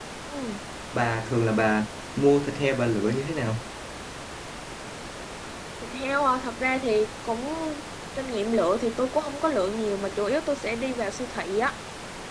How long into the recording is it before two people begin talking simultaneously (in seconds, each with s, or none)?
none